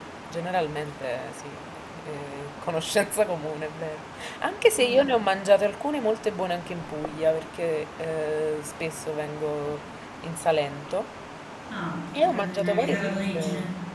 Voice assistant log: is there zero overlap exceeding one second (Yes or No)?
No